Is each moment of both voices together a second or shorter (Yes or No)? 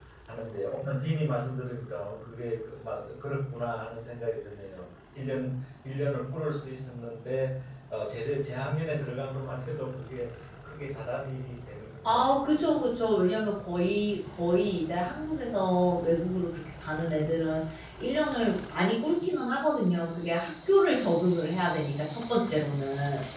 Yes